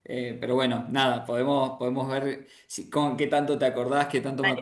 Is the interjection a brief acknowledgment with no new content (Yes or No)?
No